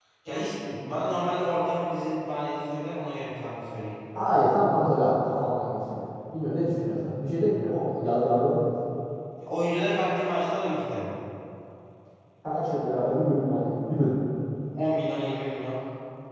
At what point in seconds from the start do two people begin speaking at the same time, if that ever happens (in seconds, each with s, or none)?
none